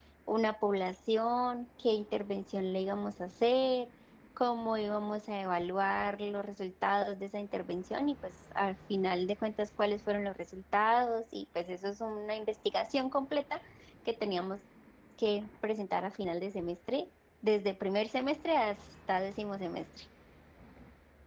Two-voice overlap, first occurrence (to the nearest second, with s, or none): none